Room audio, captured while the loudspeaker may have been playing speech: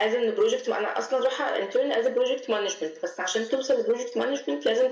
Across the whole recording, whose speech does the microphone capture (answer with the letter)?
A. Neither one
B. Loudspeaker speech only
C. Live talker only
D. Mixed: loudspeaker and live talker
B